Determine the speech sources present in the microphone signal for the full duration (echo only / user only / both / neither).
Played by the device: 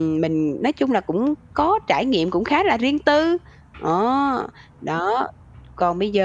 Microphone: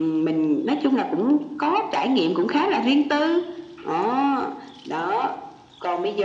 echo only